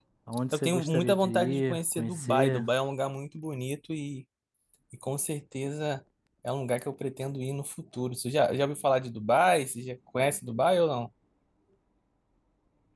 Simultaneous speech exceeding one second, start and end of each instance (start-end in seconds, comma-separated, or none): 0.5-2.7